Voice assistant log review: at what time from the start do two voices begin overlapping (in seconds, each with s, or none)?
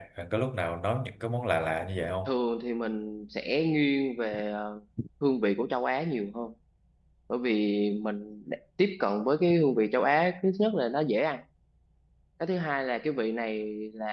none